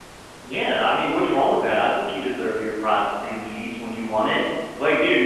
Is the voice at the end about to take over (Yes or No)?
No